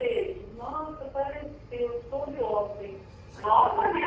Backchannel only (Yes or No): Yes